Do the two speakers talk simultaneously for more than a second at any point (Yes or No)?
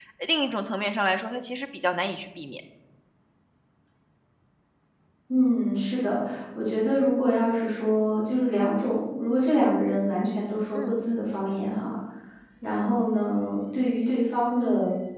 No